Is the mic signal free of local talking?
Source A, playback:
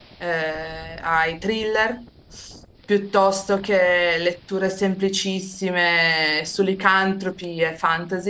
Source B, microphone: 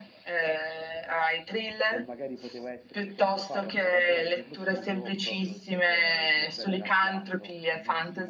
No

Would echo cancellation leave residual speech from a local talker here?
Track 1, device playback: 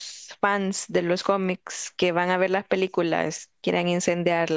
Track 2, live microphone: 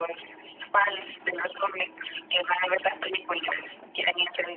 No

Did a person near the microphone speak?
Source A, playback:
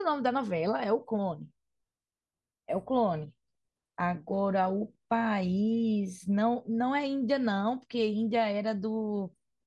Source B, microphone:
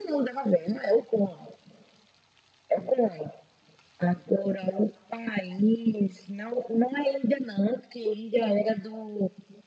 No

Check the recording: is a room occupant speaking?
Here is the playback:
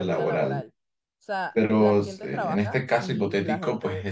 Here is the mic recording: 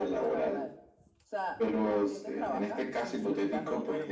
Yes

